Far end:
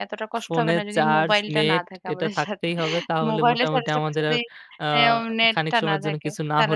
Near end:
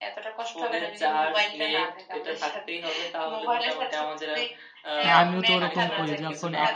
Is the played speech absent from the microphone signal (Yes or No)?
No